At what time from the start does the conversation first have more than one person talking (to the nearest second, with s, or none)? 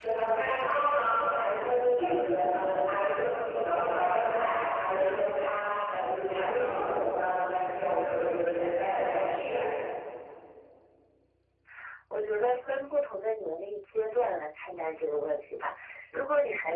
none